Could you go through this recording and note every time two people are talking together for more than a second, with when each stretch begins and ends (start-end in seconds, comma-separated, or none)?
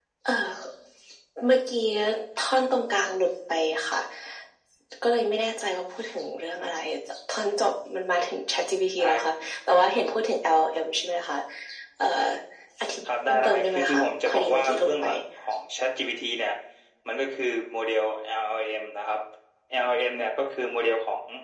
13.3-15.0